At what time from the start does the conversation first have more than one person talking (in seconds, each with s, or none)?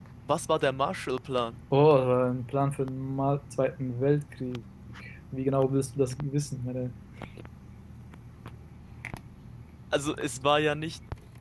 none